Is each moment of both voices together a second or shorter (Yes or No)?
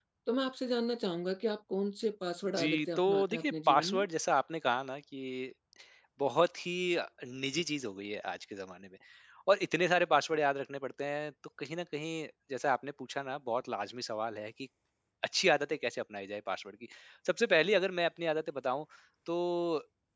No